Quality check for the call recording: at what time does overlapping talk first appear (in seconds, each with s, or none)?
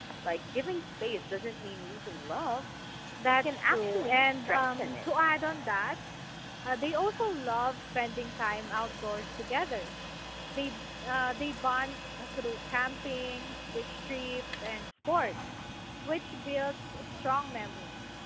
3.4 s